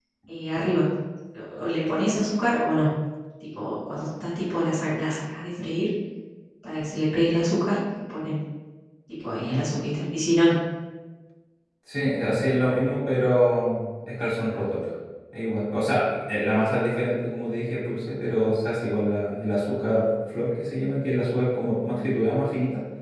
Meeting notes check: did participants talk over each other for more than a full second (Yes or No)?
No